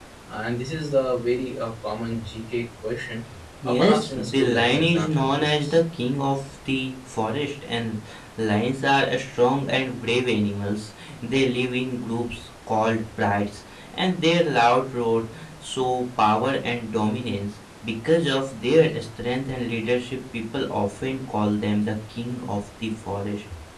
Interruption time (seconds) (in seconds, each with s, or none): 3.6 s